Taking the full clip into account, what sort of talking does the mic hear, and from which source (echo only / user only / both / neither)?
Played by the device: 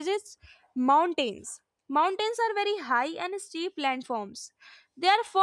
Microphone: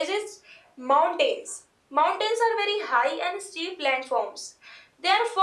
echo only